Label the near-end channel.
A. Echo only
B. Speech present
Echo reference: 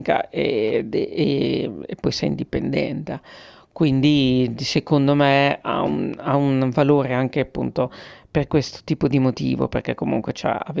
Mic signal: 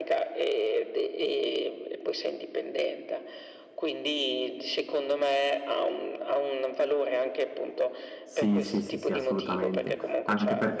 B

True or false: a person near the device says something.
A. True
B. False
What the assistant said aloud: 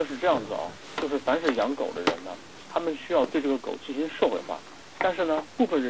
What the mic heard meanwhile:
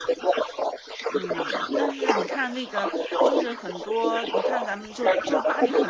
A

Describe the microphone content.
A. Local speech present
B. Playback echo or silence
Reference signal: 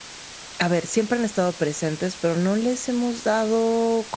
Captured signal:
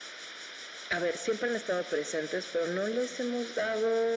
B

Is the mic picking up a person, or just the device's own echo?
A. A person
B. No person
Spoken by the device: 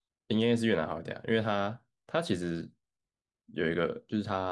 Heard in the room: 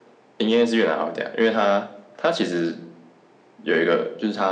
B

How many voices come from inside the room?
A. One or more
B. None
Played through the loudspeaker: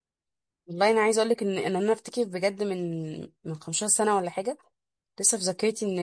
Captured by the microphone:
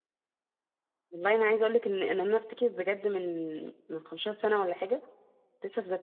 B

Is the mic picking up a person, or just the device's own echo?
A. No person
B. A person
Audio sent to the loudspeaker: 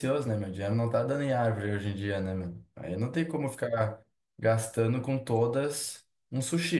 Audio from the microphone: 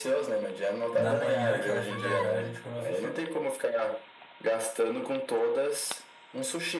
B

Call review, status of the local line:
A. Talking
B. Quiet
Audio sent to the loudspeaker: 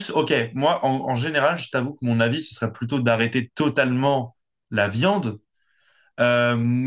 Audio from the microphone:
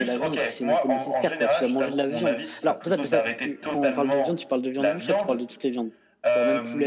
A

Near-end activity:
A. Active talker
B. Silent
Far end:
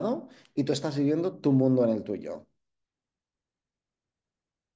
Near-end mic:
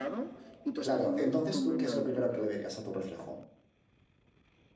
A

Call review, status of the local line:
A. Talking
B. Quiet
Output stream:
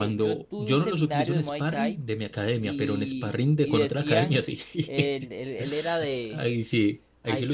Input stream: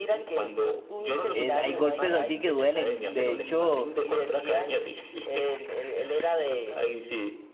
A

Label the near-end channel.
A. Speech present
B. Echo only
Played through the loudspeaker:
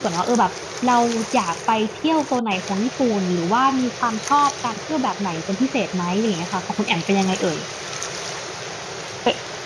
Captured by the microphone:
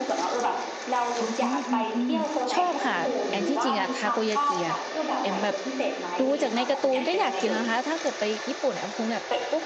A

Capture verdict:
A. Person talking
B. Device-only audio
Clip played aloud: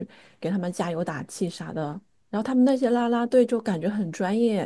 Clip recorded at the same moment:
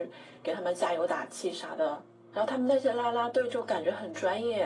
B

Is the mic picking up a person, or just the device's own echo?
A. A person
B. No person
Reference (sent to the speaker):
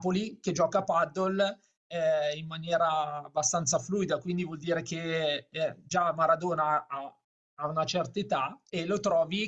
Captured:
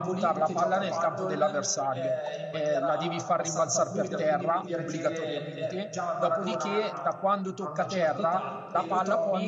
A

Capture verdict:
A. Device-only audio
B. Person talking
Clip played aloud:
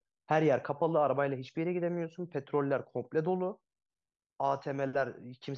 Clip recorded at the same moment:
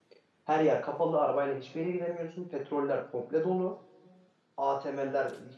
A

